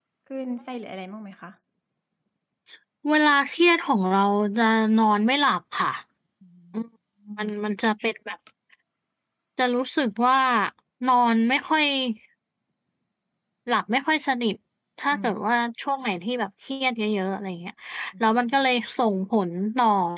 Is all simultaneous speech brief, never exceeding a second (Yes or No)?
Yes